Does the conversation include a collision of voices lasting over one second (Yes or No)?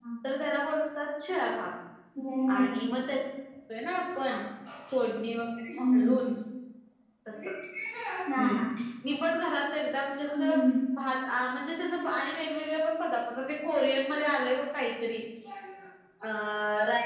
No